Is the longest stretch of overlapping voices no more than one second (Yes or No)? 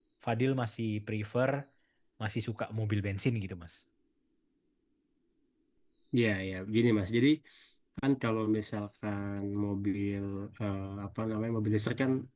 Yes